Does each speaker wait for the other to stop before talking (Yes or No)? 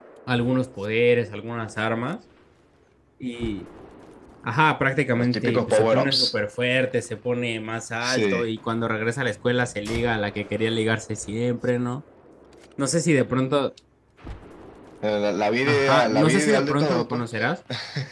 No